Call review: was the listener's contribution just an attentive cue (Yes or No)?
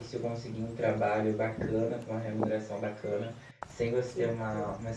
Yes